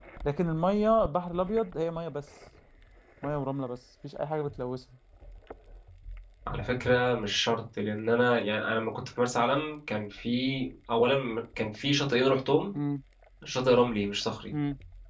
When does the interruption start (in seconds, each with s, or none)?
none